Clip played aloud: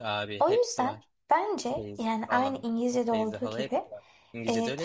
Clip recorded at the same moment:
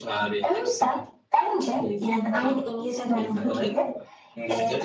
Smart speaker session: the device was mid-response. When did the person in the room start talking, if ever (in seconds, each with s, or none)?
none